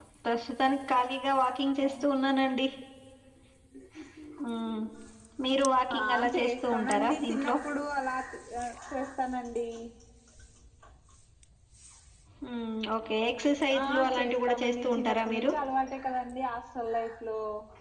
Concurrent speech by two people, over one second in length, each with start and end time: 6.0-7.6, 13.8-15.5

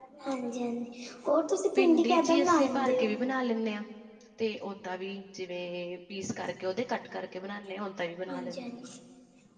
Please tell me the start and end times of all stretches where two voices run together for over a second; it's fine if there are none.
1.8-3.1

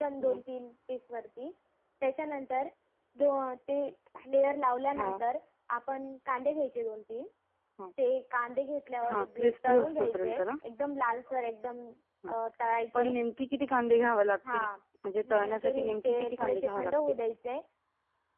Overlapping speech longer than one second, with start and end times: 9.1-10.4, 15.3-16.9

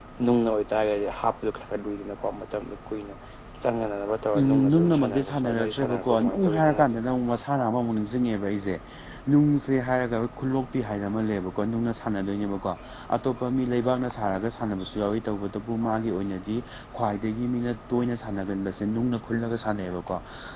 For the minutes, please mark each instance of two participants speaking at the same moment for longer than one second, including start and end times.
4.4-6.9

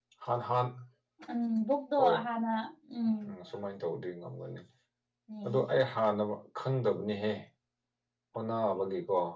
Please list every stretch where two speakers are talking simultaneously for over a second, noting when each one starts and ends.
none

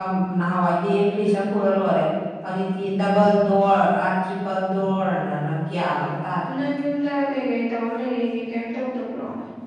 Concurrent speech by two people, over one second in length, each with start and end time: none

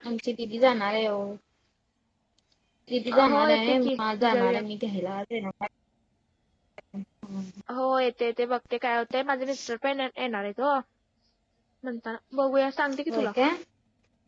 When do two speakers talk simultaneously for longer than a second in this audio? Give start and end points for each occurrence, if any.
3.3-4.6

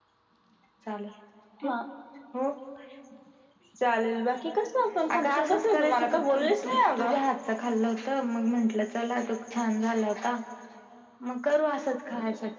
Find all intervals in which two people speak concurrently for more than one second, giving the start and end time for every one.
5.1-7.2

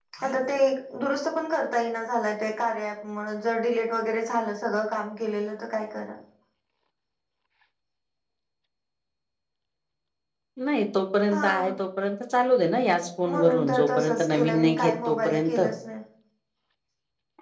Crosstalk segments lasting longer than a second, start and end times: 13.2-15.6

